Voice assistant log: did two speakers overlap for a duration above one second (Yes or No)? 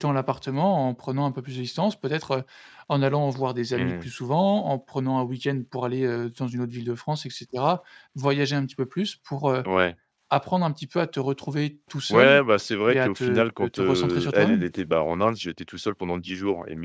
Yes